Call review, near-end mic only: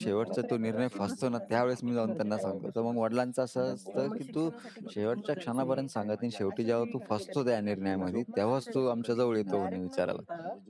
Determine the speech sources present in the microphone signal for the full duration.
both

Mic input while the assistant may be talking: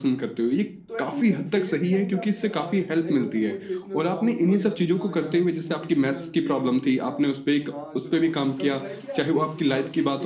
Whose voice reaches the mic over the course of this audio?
both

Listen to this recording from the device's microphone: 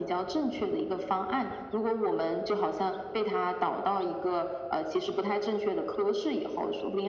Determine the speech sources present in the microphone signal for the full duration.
echo only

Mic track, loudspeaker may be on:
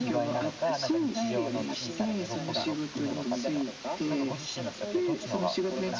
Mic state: both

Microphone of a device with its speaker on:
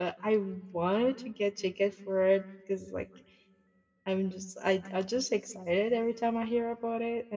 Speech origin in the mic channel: user only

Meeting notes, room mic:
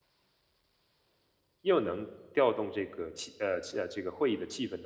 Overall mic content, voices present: user only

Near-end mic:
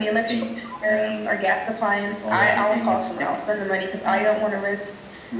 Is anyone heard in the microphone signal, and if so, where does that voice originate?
both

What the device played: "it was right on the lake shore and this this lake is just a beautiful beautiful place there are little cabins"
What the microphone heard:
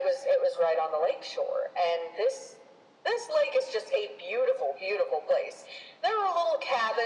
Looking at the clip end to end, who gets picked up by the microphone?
echo only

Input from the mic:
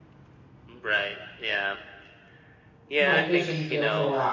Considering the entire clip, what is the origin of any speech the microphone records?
both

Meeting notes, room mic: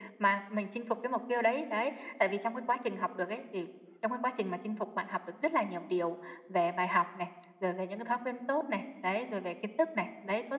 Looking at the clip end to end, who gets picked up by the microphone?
echo only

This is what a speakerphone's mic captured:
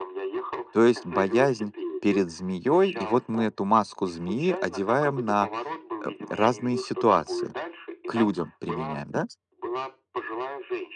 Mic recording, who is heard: both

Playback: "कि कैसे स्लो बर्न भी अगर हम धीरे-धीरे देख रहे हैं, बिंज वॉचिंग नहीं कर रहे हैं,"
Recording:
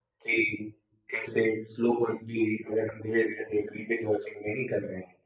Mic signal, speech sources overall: echo only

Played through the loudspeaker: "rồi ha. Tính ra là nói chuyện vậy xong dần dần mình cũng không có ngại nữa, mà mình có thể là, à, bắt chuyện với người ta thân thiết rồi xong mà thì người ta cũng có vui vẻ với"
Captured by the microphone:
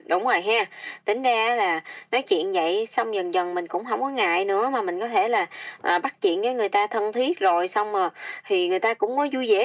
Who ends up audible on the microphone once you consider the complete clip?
echo only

